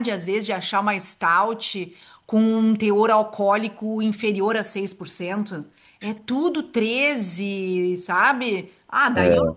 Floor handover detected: No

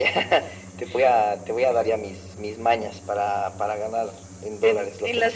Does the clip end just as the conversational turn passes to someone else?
Yes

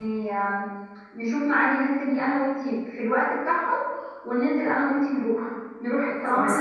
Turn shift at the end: No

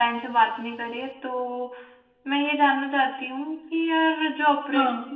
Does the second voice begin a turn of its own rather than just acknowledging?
No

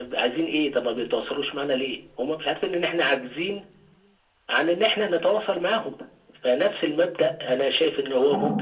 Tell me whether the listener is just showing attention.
Yes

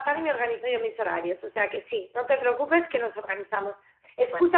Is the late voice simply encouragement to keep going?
Yes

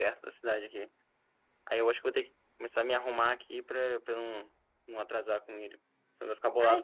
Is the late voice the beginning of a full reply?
Yes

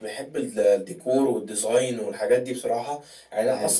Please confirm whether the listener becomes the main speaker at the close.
No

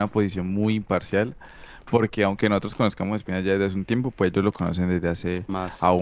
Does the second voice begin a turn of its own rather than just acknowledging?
No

